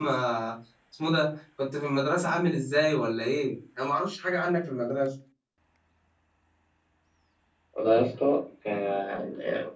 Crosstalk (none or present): none